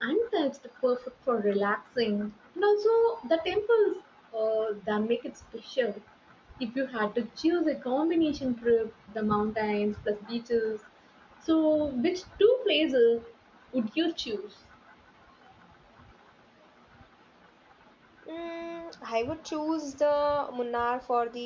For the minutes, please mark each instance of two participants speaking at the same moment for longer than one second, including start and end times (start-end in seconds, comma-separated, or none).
none